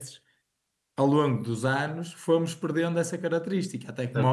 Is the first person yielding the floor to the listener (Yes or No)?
Yes